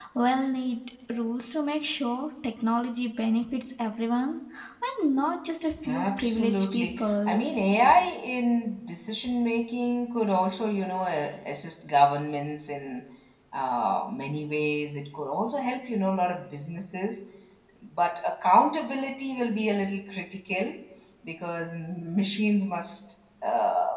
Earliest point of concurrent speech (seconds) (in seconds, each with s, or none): 5.8 s